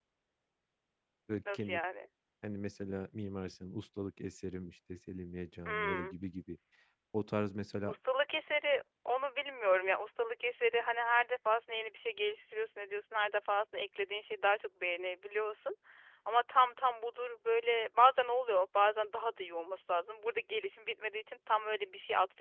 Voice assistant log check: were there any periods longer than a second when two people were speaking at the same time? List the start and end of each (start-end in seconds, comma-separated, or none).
none